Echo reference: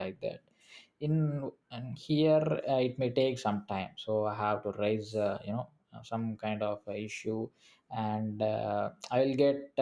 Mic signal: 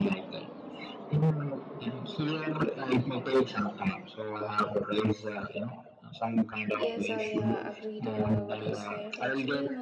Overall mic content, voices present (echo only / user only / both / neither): both